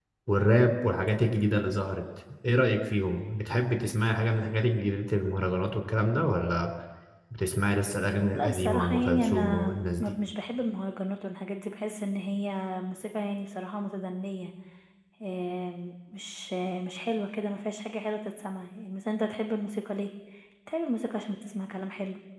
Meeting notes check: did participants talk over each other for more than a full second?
Yes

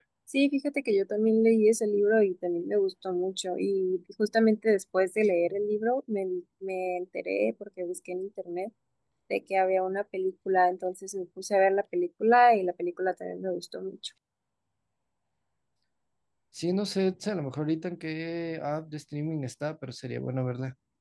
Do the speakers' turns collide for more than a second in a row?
No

